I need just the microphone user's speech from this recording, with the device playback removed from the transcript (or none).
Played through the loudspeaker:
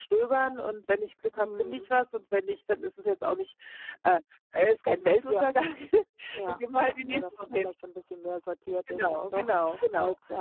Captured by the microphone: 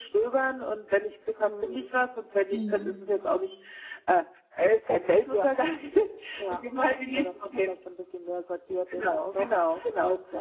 Mhm.